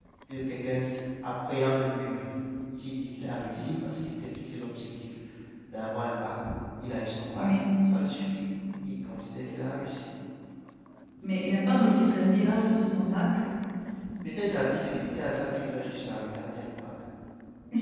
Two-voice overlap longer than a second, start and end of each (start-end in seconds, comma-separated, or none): none